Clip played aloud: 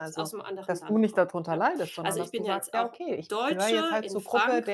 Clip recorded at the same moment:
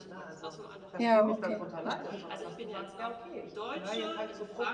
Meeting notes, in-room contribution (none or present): present